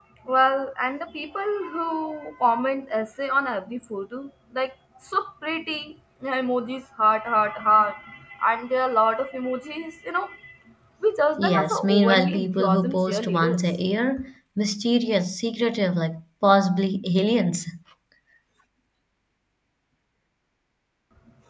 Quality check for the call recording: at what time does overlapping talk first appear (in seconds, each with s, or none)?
11.4 s